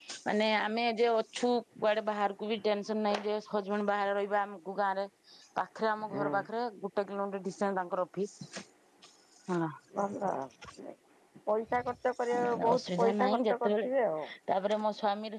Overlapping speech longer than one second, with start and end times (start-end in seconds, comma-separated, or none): 12.4-13.9